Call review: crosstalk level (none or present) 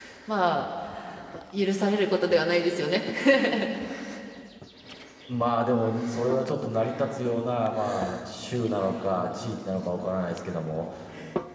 none